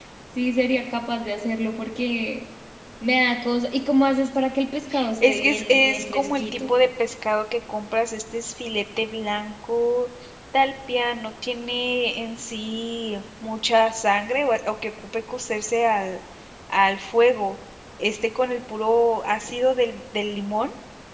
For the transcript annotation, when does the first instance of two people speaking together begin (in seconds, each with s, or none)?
5.2 s